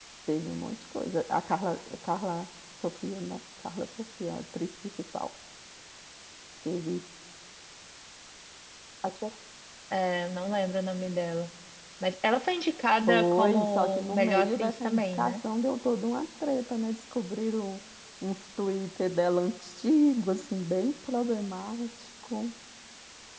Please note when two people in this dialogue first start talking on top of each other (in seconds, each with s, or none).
13.1 s